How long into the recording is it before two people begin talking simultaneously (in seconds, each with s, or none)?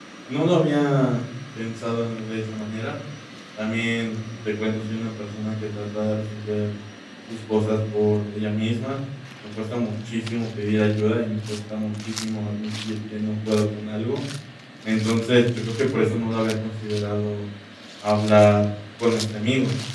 none